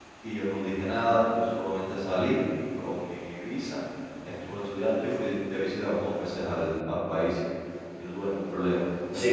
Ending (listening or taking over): taking over